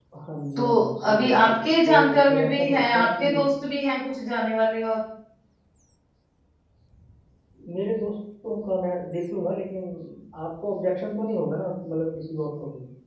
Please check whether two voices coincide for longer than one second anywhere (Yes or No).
Yes